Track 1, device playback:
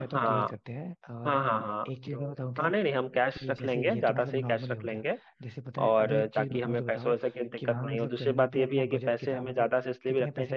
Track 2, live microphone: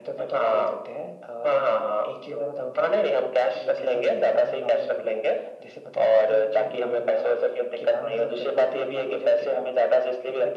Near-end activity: none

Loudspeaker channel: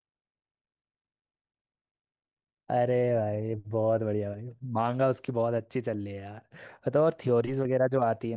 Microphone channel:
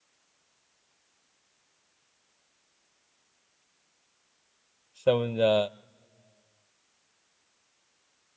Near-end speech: present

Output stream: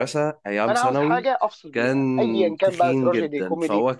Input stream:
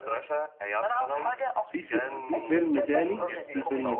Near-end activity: present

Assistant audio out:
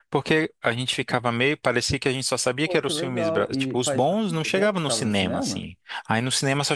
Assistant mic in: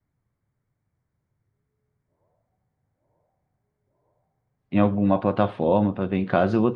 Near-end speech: present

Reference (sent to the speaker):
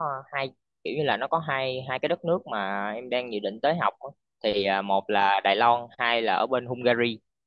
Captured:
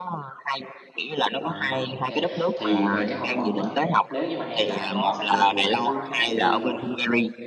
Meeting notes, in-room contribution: present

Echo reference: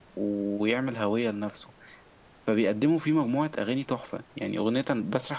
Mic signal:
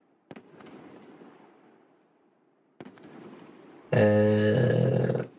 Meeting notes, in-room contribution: present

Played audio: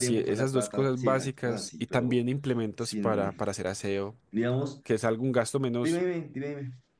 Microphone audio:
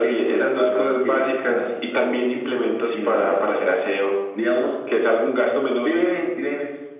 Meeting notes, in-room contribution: none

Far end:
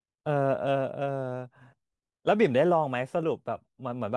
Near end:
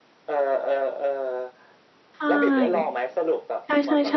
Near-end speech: present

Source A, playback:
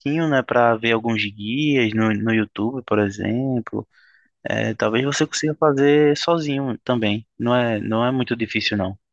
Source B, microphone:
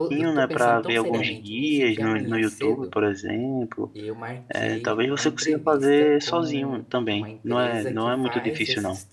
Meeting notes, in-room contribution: present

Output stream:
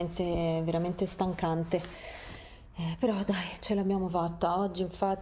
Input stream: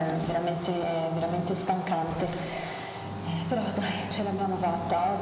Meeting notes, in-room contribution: none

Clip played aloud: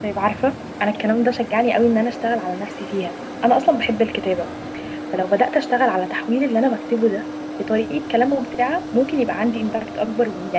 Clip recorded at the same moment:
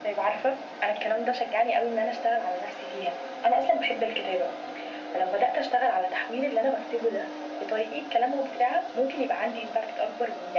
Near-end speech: none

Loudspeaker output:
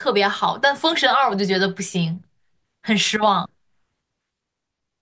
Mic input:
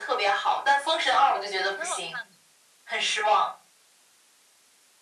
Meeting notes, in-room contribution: present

